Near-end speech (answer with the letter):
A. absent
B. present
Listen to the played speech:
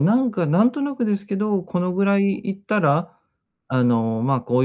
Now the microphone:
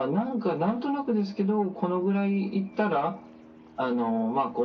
A